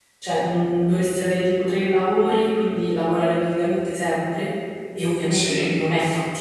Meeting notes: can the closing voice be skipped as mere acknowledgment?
Yes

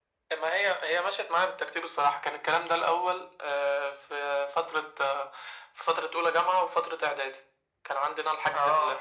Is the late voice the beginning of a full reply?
No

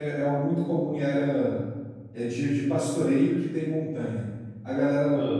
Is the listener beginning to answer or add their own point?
No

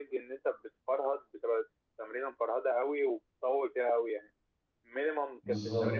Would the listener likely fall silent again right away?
Yes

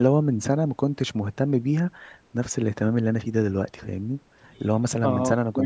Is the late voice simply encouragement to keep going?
Yes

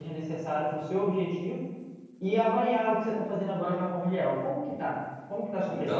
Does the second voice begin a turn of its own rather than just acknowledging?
Yes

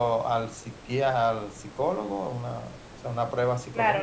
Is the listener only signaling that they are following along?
No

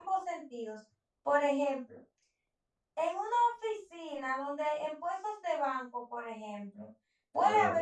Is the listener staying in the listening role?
Yes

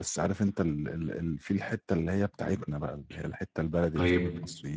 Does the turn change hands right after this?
Yes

